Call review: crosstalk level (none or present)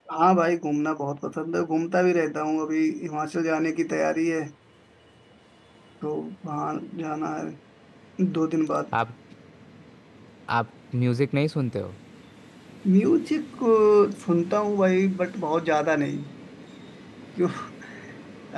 none